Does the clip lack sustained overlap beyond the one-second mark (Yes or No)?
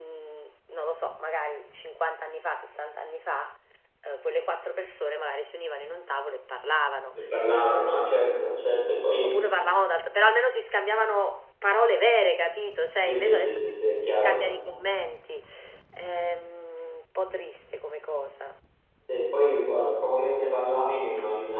No